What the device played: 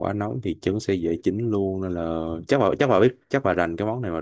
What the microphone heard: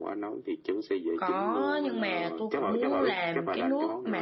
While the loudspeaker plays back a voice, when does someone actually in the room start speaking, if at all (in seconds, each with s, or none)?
1.1 s